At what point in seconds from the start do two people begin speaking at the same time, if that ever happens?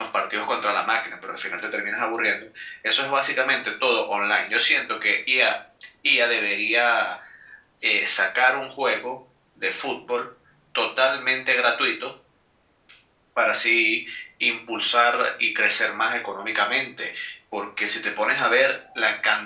none

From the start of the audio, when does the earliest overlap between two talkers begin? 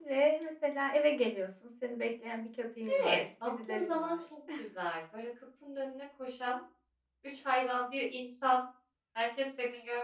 2.9 s

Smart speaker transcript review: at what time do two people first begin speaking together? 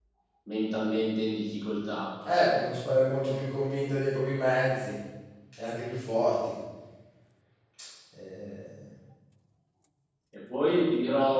none

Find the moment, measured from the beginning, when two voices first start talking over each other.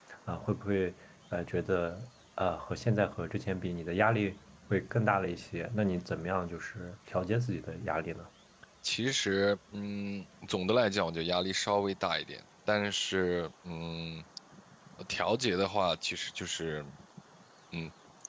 none

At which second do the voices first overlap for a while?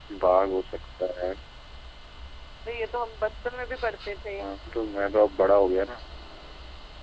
none

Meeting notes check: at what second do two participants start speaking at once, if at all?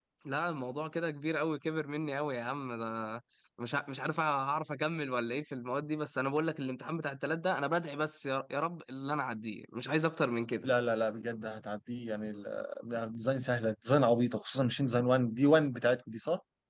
none

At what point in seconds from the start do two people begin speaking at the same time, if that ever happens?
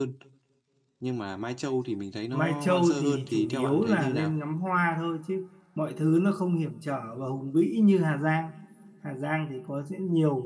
2.3 s

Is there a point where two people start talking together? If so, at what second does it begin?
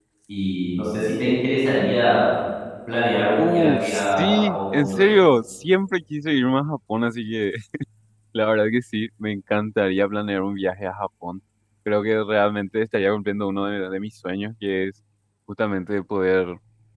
3.4 s

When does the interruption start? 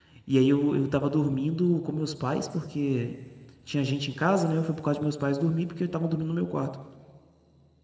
none

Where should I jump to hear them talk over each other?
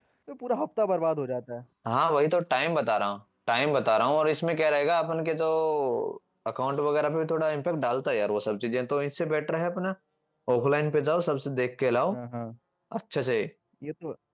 none

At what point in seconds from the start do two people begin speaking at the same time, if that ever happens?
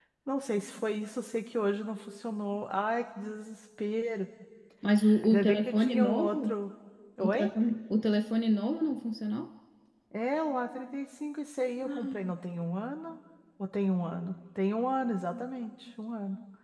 5.2 s

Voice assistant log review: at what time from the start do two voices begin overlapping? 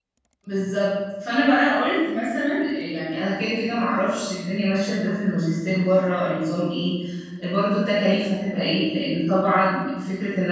none

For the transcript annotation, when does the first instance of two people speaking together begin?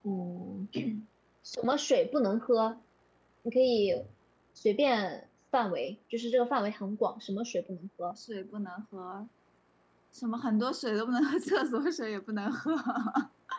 none

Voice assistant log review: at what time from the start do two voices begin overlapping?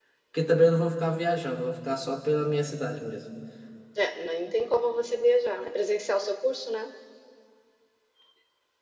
none

